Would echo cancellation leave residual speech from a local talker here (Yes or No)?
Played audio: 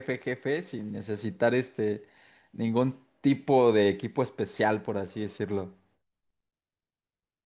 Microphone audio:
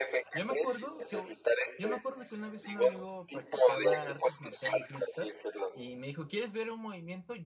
Yes